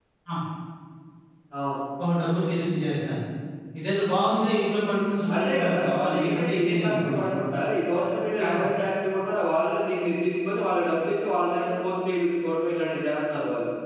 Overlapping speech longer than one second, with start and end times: 5.3-7.3

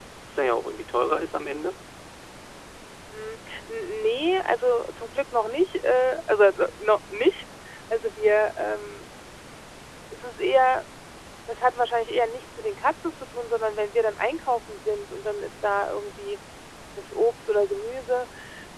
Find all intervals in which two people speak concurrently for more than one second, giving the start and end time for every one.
none

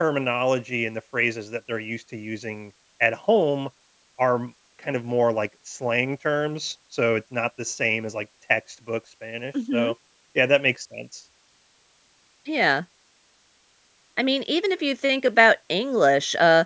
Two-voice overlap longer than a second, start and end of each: none

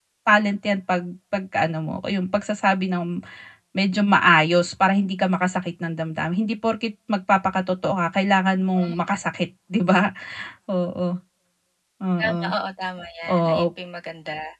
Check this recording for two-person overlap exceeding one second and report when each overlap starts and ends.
none

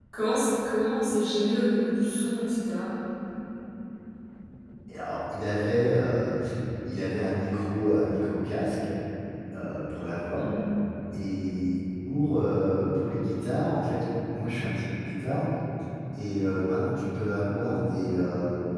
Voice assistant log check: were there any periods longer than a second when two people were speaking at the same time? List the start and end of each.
none

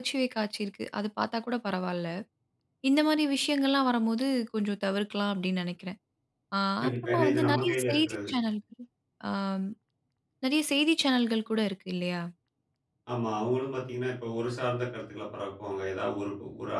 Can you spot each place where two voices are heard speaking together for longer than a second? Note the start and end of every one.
6.8-8.3

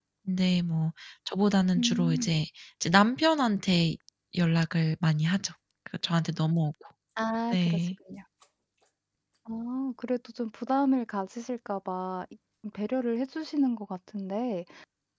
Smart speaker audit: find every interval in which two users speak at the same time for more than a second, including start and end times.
none

